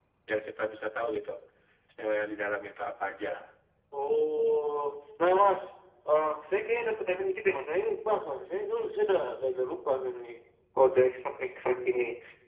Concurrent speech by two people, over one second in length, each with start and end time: none

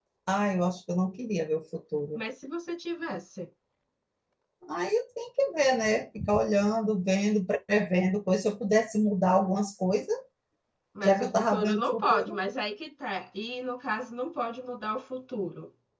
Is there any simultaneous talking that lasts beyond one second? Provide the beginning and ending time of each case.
11.0-12.4

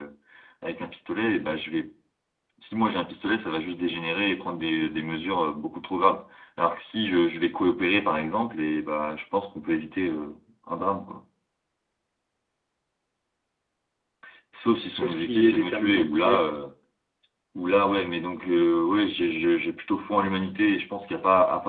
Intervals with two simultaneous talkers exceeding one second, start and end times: 14.9-16.4

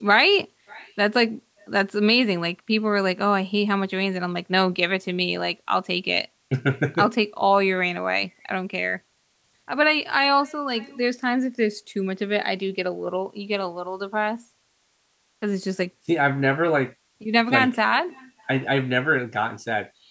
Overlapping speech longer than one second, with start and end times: none

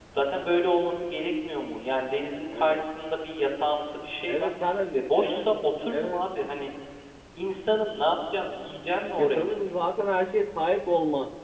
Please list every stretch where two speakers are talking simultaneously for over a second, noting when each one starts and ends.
none

